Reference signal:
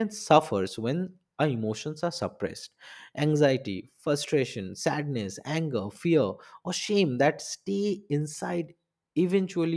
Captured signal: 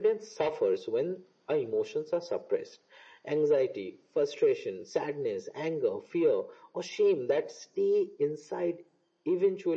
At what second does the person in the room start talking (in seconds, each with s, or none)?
none